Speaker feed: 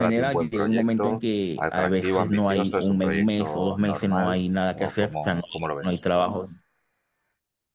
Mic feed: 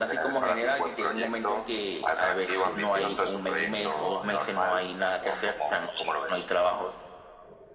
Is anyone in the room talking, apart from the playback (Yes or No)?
Yes